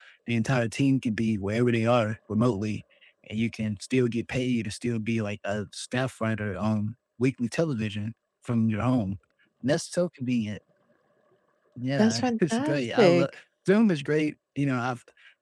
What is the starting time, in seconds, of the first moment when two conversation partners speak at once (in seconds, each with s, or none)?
12.0 s